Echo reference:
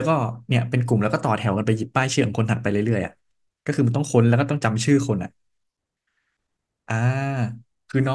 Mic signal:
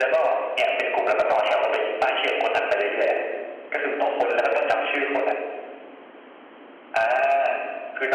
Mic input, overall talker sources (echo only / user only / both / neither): echo only